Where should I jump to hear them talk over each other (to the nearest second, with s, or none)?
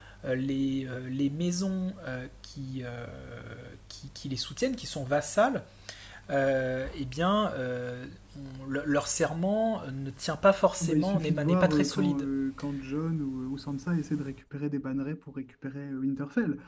11 s